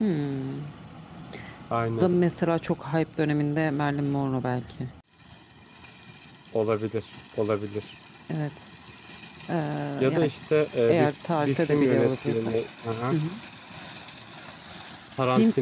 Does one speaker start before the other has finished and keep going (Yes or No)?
Yes